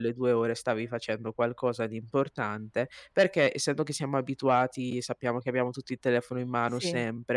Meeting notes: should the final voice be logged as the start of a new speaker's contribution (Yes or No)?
No